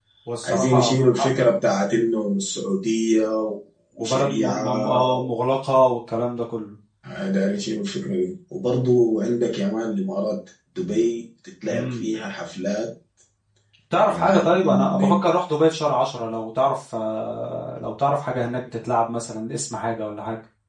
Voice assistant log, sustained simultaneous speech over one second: present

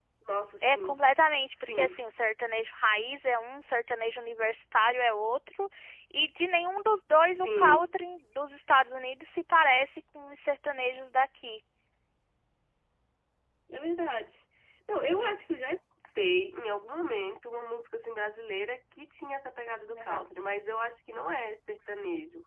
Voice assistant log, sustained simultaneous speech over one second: none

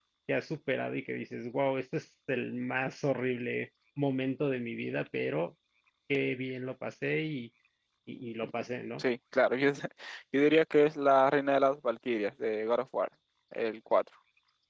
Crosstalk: none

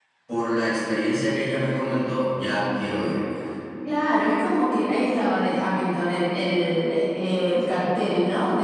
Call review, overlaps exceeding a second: none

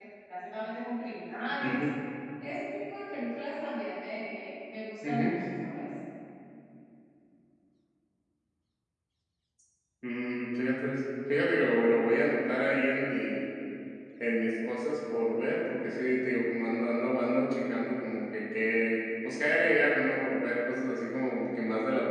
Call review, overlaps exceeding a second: none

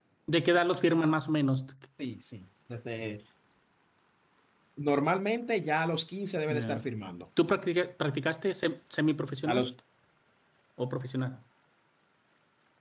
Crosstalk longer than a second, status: none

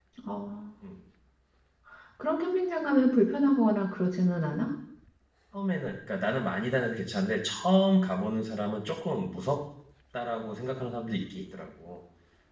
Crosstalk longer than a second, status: none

